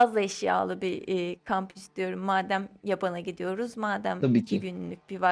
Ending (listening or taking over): listening